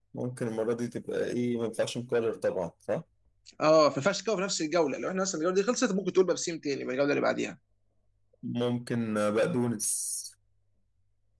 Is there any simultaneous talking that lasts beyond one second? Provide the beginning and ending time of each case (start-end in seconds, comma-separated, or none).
none